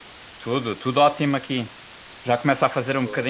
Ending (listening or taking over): listening